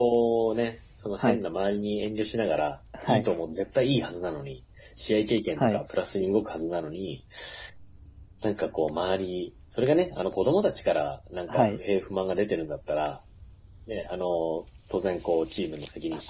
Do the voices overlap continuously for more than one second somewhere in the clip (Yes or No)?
No